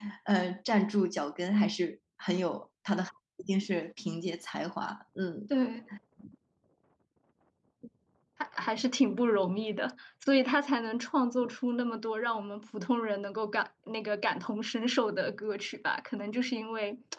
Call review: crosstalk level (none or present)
none